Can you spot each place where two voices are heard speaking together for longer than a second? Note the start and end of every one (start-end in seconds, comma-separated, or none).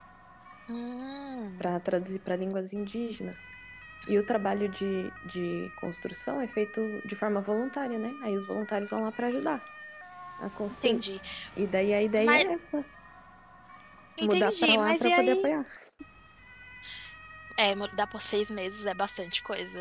14.2-15.5